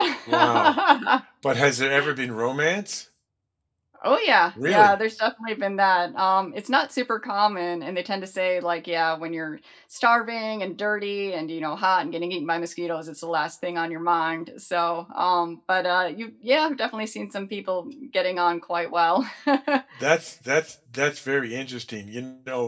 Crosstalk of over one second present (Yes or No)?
No